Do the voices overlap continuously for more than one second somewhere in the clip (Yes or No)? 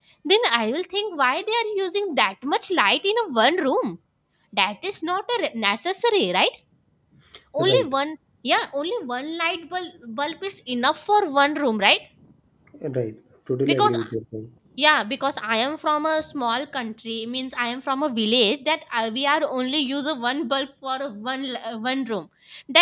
No